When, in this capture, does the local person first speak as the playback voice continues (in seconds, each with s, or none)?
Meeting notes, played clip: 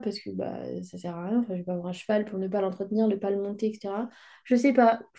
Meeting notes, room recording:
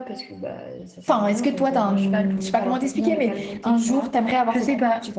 1.0 s